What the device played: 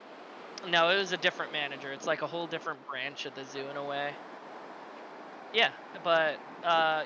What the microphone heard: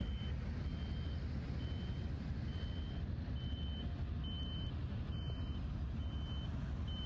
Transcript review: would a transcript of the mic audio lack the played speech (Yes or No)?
Yes